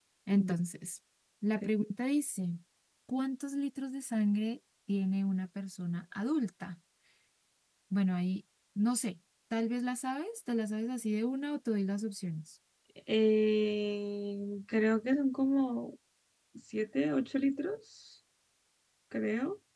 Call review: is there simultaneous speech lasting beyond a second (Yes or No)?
No